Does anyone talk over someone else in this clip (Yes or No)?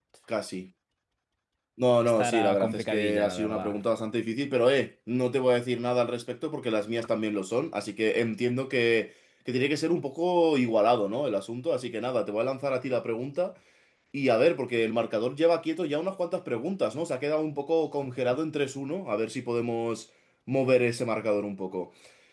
Yes